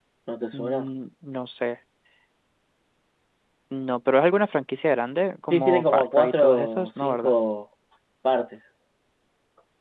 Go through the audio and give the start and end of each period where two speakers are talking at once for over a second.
5.5-7.3

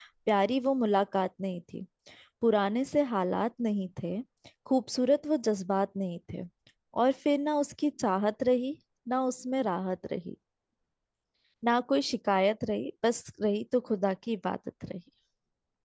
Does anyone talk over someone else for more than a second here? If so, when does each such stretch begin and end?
none

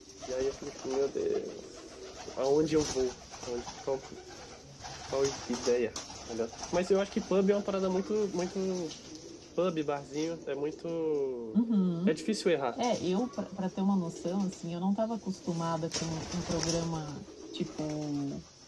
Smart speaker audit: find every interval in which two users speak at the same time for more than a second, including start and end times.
none

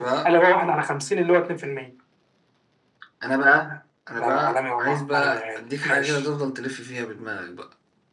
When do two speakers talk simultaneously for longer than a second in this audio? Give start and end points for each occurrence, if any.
4.2-6.2

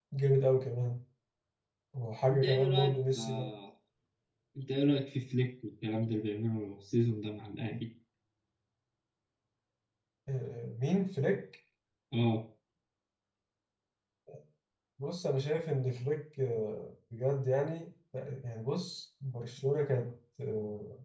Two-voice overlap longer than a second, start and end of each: 2.3-3.5

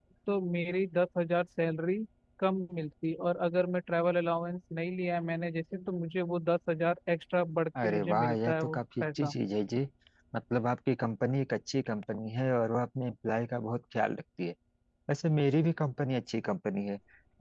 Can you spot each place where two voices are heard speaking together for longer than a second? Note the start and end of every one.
7.8-9.3

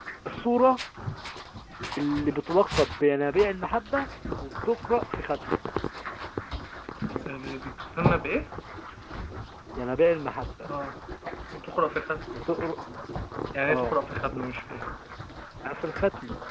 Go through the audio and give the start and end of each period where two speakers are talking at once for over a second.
none

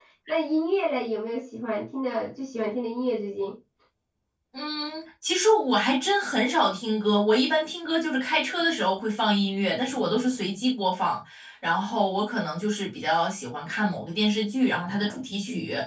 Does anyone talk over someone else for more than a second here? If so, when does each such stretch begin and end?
none

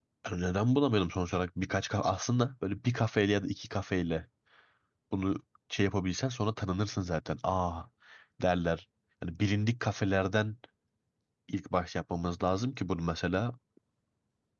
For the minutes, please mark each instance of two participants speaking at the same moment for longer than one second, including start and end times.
none

